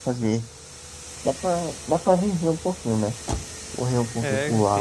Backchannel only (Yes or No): No